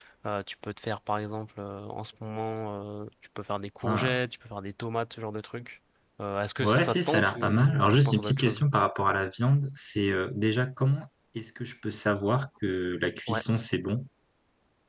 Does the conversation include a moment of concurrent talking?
Yes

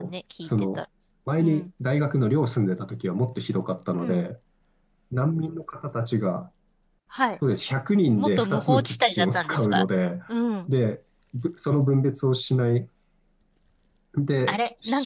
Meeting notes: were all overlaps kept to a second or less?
No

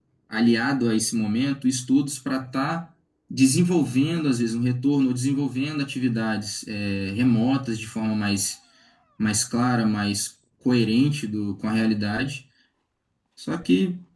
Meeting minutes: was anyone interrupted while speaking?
No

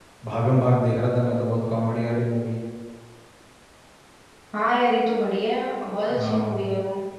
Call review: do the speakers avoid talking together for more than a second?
Yes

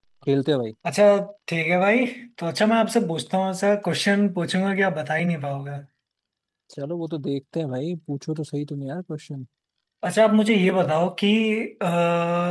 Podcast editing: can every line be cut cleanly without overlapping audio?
Yes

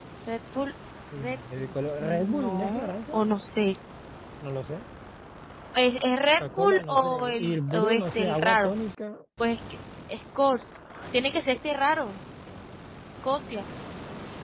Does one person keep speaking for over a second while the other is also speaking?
Yes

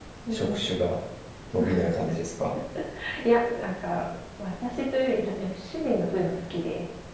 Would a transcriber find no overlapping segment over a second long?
Yes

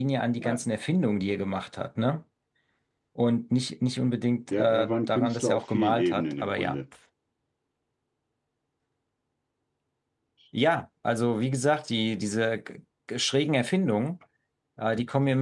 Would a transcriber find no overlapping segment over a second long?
No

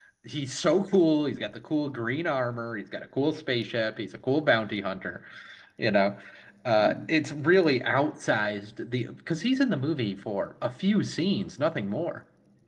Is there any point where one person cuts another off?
No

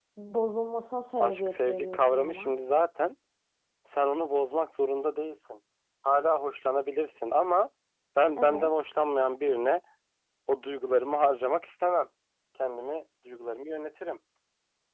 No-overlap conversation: No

